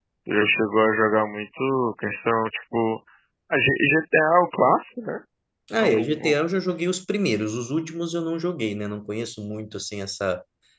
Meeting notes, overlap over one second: none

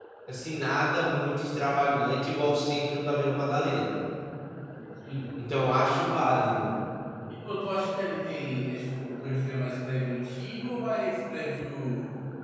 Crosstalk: none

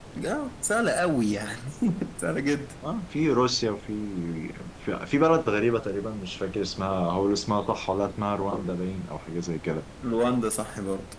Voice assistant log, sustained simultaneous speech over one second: none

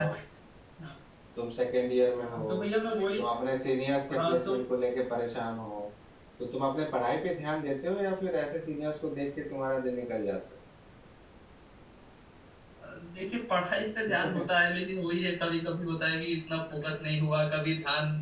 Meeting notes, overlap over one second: none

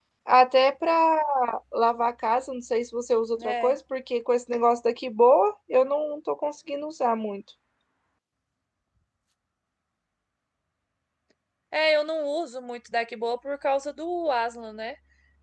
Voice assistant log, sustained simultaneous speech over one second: none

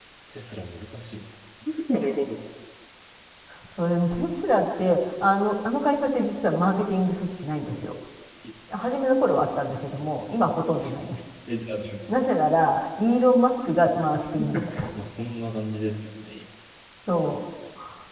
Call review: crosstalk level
none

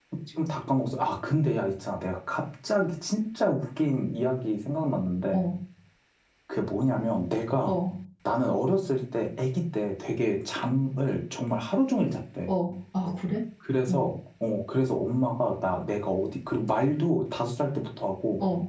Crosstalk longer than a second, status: none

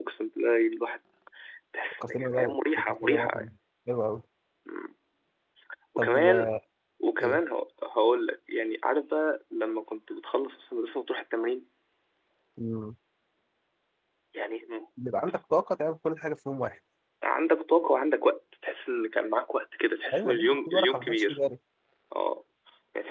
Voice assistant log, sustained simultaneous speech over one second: present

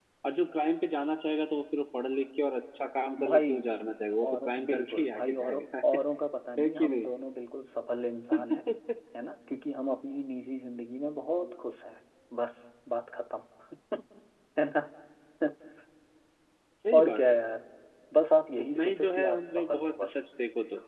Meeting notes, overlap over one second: present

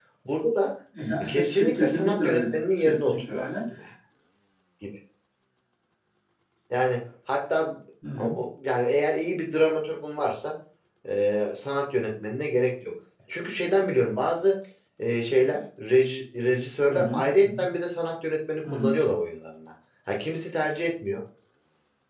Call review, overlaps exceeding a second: present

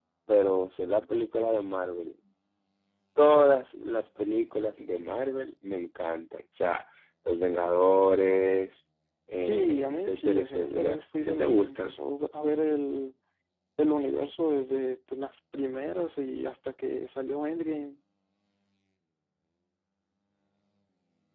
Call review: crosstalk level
present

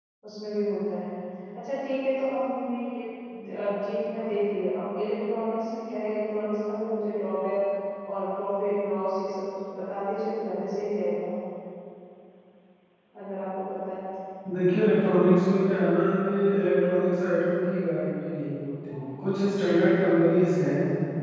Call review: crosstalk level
none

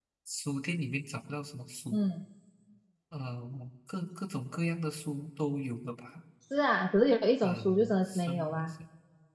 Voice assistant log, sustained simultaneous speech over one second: present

